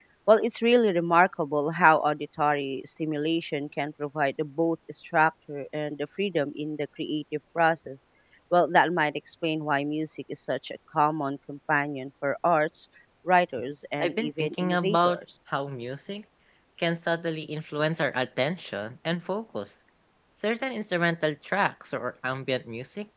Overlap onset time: 14 s

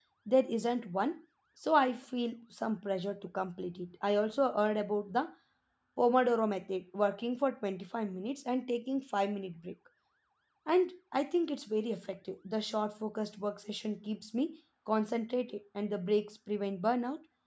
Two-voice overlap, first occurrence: none

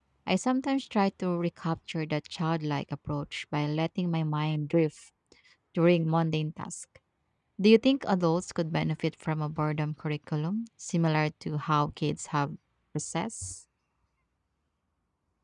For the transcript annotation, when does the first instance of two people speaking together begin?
none

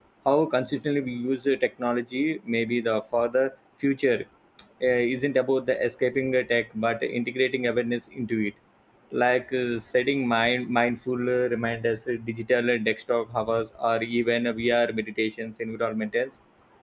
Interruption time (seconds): none

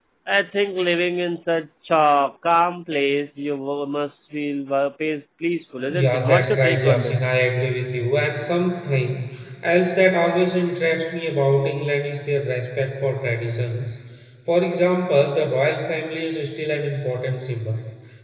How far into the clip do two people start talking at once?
6 s

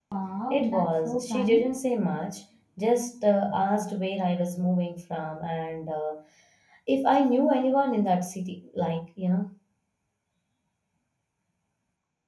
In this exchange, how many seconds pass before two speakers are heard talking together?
1 s

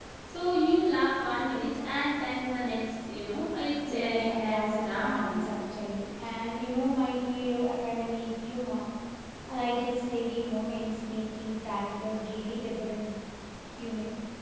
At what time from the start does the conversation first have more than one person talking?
4 s

